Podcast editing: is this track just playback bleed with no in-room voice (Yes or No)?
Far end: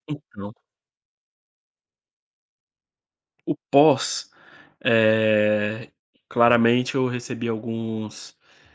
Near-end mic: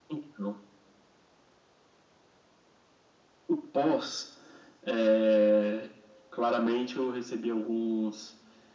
Yes